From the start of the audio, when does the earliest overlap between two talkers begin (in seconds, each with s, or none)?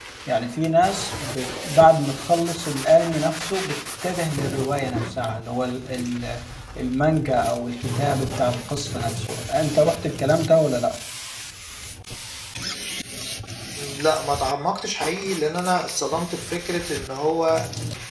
none